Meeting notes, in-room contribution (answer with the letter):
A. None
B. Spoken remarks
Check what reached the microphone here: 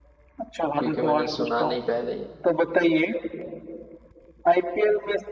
B